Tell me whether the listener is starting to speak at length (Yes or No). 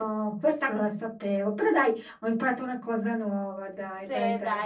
Yes